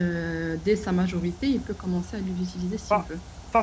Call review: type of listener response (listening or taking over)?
taking over